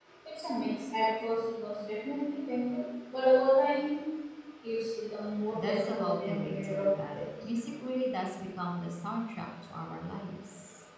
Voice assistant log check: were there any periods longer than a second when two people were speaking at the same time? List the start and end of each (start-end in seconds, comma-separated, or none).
5.5-7.3